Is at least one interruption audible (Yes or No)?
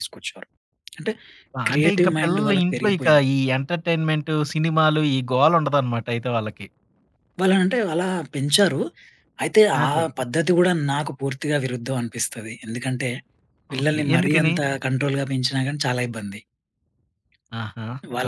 Yes